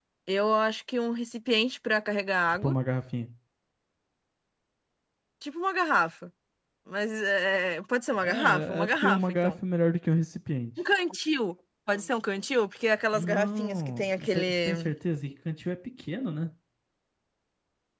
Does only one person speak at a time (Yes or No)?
No